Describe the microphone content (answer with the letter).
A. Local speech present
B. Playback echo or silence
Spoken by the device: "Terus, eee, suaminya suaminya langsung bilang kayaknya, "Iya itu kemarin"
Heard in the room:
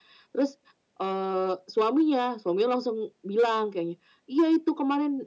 B